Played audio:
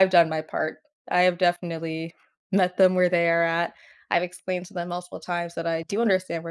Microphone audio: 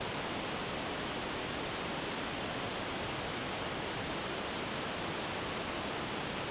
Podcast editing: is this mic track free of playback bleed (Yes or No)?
Yes